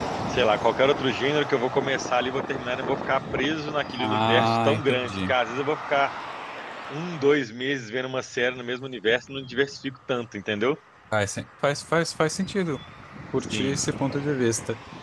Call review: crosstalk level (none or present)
present